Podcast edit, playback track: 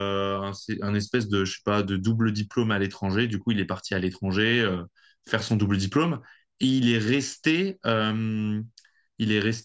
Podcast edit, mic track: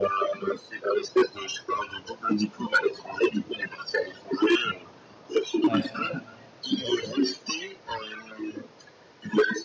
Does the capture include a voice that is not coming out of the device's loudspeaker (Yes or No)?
Yes